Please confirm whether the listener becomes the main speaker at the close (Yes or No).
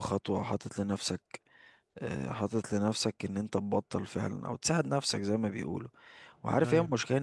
No